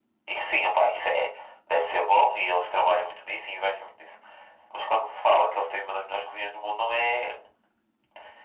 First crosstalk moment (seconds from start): none

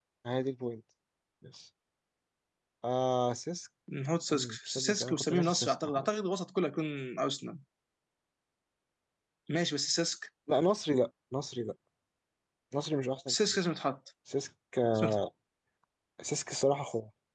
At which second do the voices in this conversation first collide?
4.3 s

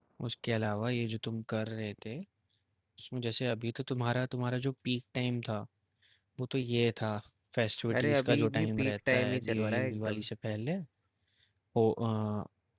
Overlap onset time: 8.0 s

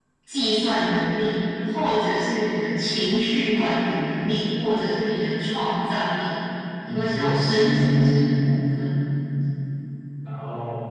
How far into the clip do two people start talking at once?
6.9 s

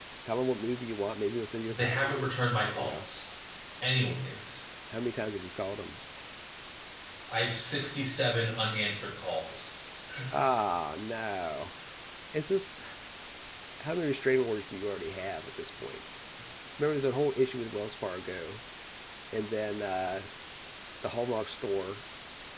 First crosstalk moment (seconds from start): 1.7 s

